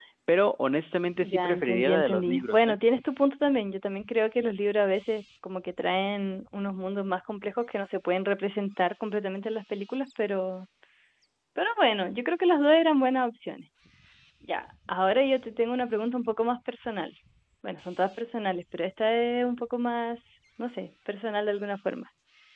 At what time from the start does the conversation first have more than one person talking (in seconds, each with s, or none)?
1.2 s